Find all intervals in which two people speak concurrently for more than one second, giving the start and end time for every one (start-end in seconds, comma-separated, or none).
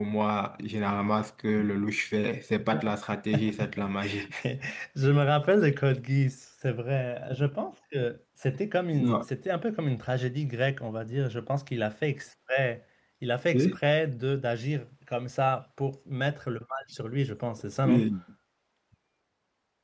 none